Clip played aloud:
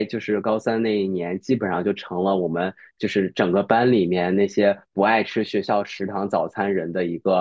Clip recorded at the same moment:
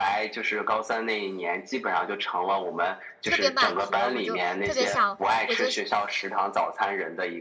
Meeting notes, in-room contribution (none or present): present